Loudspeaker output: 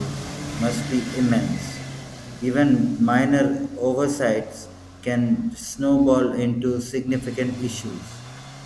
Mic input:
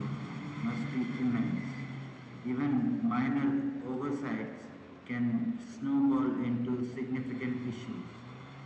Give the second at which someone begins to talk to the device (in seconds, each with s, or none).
none